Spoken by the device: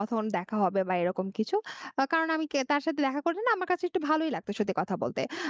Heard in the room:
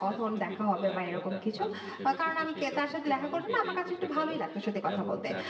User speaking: Yes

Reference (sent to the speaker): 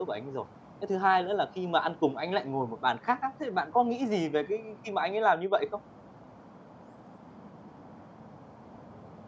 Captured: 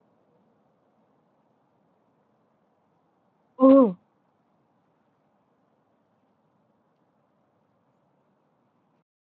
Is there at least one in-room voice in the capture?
Yes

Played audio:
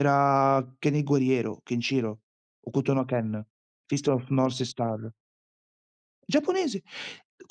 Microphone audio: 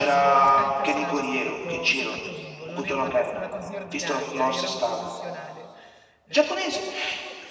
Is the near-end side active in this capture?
Yes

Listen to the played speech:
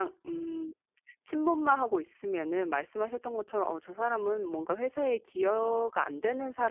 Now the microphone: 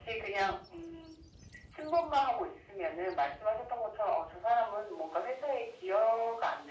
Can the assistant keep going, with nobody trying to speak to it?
Yes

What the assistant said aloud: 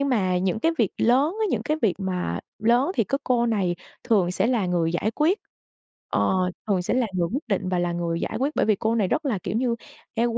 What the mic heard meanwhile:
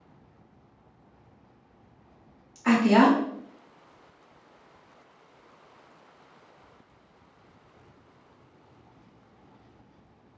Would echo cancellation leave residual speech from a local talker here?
Yes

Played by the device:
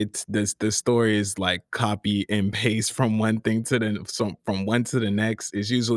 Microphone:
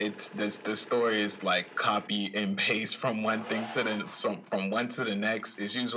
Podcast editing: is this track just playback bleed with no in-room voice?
Yes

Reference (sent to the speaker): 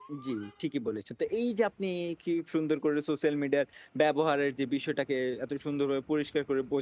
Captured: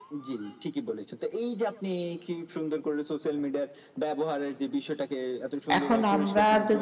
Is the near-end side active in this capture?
Yes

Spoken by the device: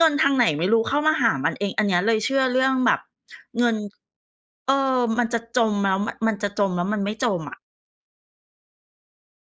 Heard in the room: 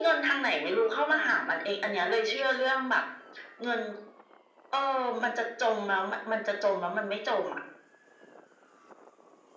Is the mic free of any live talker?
No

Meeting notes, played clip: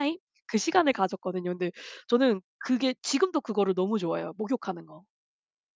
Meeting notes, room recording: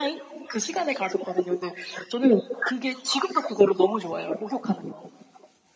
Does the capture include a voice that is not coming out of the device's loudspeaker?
No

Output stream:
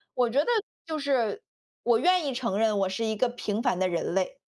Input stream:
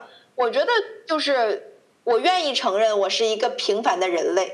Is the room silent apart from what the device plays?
Yes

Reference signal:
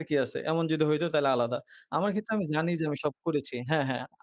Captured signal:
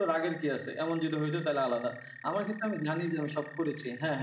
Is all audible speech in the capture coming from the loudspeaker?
Yes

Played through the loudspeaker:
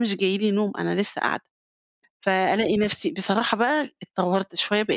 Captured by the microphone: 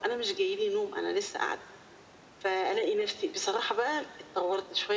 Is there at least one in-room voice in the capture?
No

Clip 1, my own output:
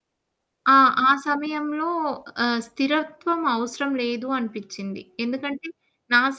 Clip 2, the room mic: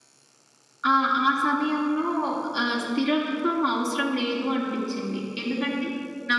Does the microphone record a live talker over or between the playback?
No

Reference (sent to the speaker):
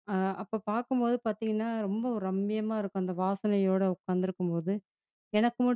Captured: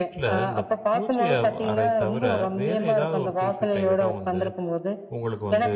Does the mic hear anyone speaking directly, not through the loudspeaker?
Yes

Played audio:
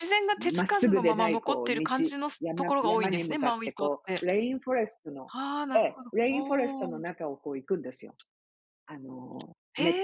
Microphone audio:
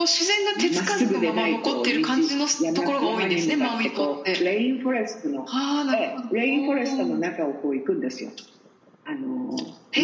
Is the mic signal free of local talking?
Yes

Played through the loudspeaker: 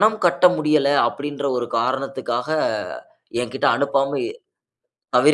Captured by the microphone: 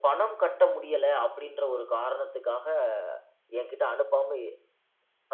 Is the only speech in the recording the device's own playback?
Yes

